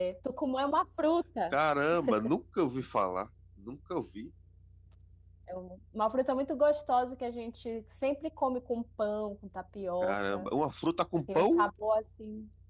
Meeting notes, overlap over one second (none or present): none